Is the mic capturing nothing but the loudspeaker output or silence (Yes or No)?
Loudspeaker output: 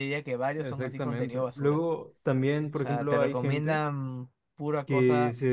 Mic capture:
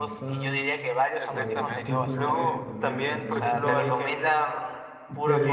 No